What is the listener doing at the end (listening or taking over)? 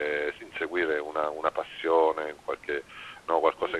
listening